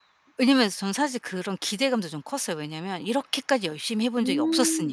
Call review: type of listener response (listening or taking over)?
taking over